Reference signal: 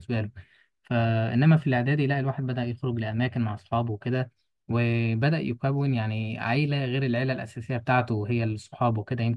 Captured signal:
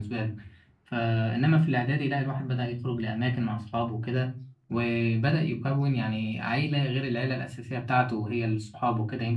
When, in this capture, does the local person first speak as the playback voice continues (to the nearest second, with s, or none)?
none